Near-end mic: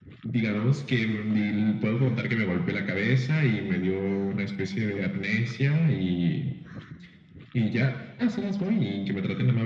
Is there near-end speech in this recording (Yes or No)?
No